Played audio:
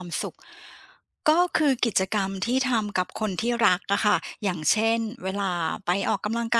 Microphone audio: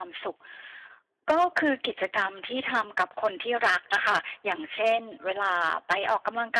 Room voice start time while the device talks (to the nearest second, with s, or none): none